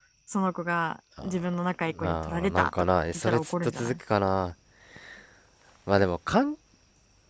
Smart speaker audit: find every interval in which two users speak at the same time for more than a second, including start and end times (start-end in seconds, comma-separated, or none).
2.0-3.9